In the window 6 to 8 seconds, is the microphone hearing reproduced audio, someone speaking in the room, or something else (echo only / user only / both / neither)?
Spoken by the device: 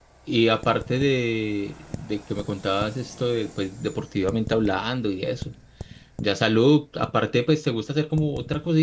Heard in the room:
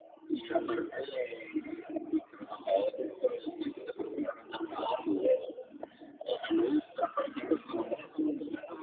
echo only